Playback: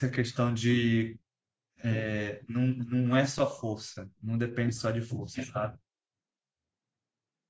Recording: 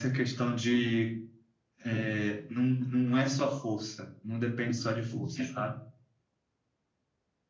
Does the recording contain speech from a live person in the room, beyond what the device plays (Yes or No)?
No